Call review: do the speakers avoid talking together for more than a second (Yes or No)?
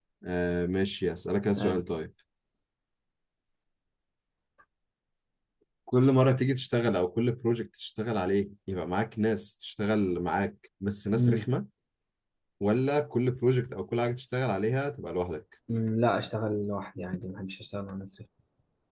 Yes